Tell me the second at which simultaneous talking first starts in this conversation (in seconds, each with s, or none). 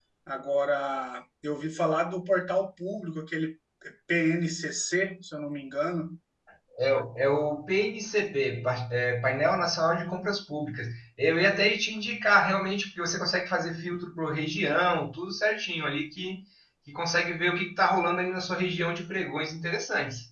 none